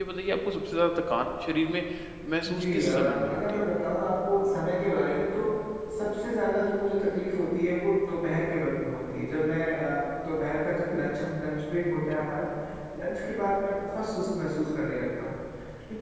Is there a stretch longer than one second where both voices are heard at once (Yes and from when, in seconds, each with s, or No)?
Yes, from 2.5 s